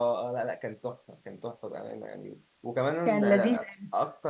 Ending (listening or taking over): listening